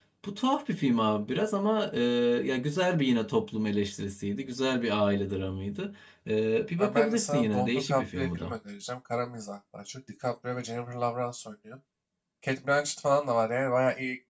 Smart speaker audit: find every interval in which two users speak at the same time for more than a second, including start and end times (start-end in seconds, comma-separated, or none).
6.8-8.5